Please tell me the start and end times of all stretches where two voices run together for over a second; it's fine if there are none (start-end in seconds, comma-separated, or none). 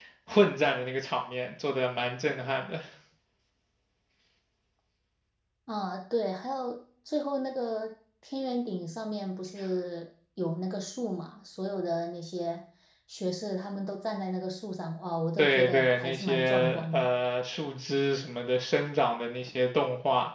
15.4-17.1